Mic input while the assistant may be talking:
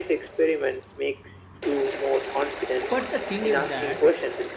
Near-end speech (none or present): present